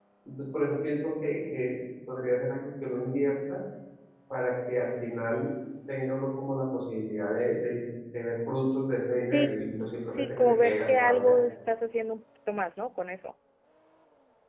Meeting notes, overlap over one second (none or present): present